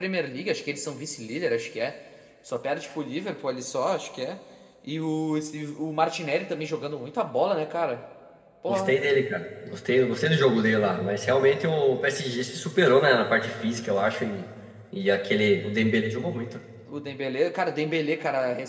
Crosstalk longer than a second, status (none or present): none